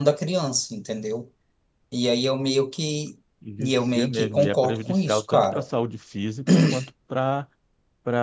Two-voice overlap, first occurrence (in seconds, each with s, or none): 3.6 s